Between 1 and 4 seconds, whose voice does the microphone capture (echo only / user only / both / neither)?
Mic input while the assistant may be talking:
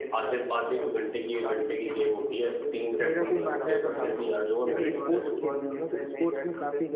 both